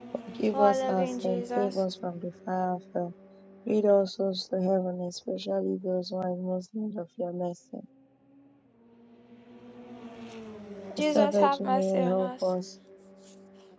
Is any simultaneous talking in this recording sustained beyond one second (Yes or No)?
Yes